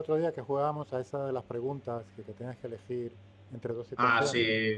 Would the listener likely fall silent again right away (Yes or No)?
No